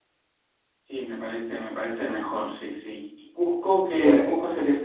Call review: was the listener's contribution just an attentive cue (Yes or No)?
Yes